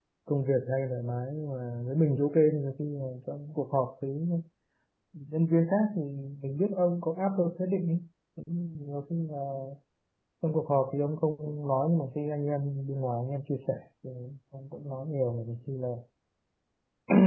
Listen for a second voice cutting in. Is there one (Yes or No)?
No